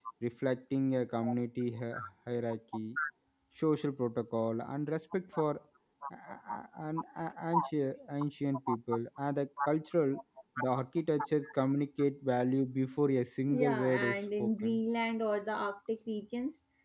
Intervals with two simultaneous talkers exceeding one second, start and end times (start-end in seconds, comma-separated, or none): 13.5-14.8